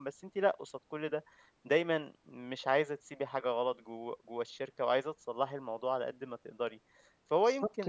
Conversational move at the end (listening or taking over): listening